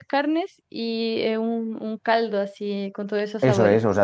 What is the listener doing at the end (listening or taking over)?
taking over